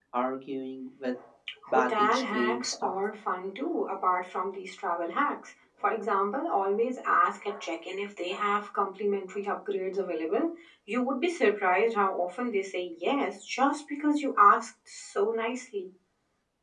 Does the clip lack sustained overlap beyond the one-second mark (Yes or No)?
No